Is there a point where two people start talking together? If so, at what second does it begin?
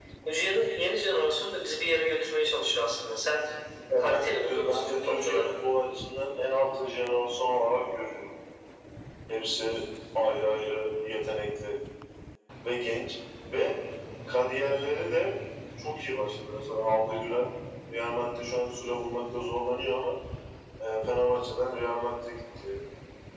4.0 s

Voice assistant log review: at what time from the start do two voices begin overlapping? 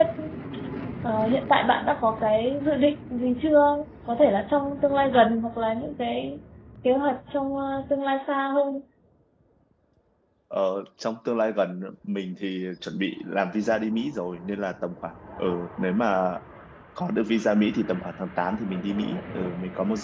none

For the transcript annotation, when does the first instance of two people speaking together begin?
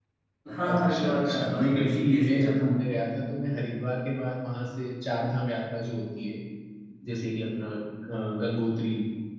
0.7 s

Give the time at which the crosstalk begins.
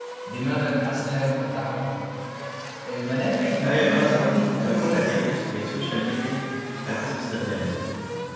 3.6 s

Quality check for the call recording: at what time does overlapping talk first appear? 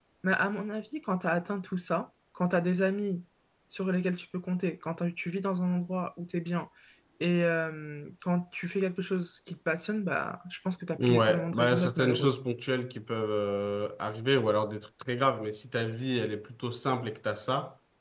10.9 s

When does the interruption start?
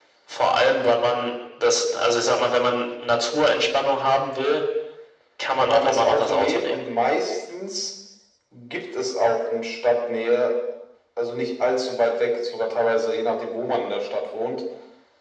5.6 s

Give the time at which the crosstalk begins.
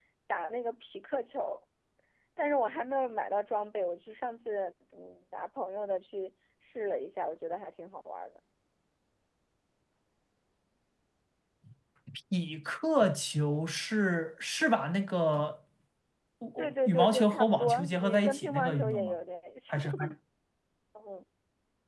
16.6 s

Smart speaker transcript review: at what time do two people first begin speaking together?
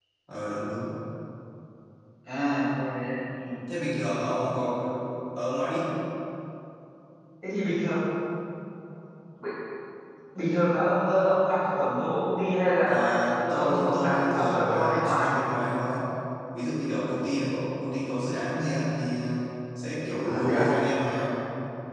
12.9 s

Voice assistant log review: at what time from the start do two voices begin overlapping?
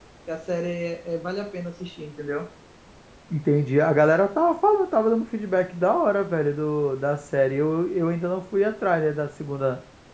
none

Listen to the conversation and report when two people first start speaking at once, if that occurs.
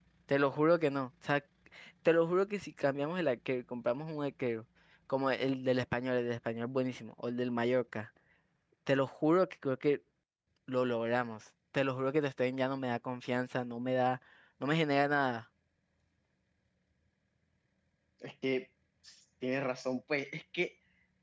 none

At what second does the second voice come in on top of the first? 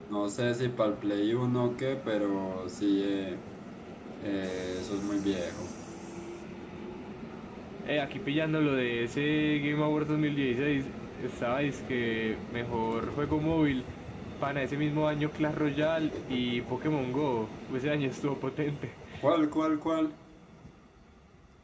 none

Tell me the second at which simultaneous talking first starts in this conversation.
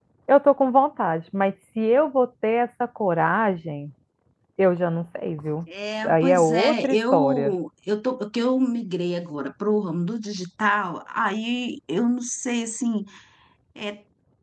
6.0 s

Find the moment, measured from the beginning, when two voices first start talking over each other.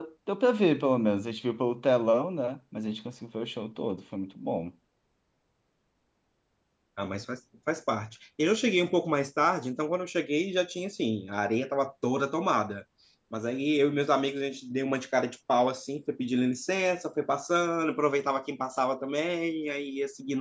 none

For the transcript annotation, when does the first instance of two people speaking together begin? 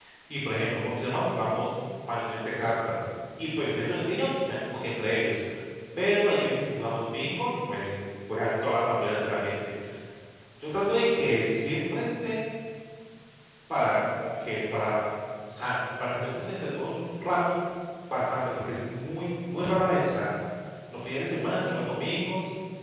none

